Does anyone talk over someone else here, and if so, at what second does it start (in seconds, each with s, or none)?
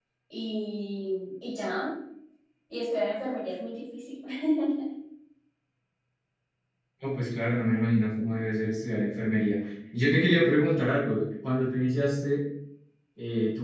none